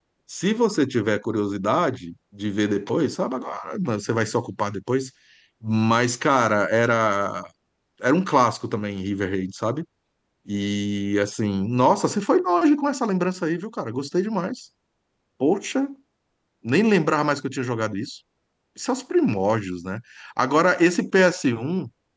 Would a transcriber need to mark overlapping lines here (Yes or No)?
No